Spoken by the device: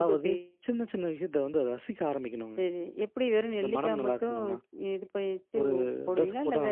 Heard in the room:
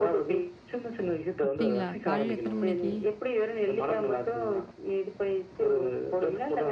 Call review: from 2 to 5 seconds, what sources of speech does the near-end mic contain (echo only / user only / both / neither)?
both